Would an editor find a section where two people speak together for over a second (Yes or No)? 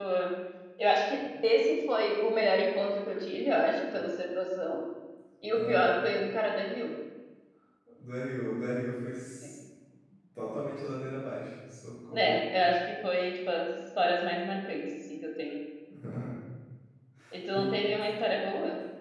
No